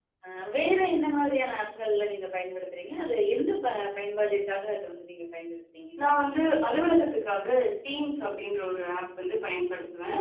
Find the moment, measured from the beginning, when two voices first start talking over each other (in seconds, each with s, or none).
none